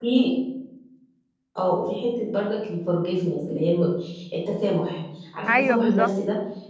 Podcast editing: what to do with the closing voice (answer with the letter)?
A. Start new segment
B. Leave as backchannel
B